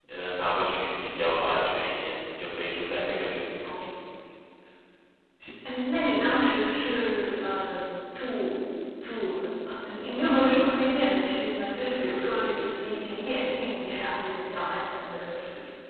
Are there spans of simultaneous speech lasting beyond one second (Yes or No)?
No